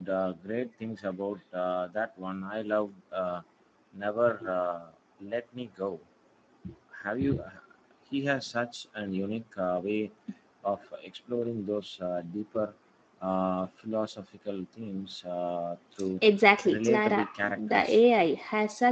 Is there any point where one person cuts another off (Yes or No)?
Yes